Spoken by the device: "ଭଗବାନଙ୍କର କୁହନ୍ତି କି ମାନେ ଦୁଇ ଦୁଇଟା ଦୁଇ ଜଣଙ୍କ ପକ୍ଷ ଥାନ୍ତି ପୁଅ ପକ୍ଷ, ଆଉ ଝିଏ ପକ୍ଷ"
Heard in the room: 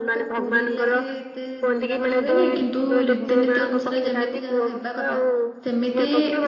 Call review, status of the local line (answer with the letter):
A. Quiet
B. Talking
B